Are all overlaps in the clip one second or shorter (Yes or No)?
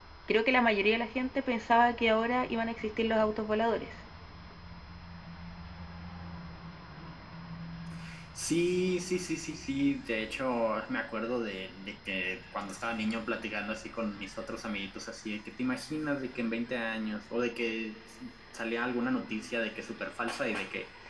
Yes